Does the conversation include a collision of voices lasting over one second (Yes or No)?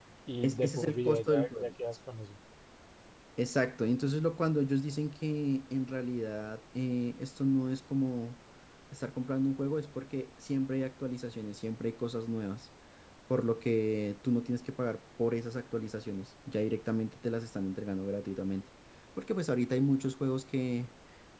Yes